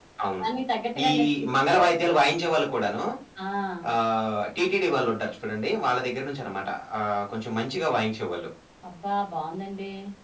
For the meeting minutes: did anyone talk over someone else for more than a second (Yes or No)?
No